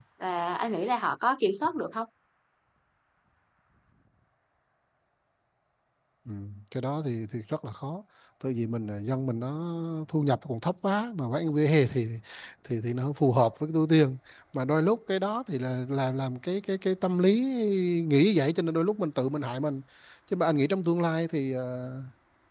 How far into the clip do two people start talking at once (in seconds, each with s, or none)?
none